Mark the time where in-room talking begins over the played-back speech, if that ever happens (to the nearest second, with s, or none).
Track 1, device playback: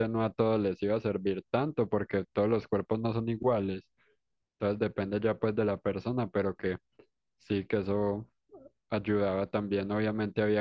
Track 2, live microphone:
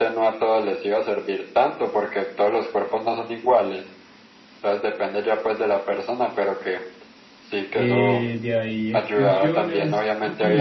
8 s